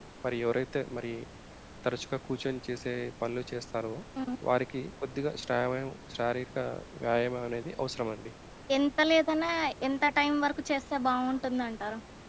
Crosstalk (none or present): none